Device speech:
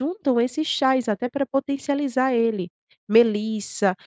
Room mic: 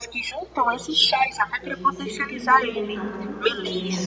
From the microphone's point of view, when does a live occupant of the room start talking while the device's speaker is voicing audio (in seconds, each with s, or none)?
0.6 s